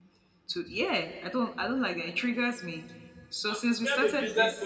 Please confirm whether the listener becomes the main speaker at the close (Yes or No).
Yes